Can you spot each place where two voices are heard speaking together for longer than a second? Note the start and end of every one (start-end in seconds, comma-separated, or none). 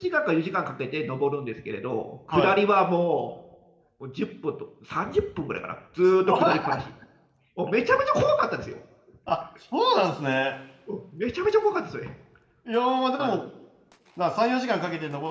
none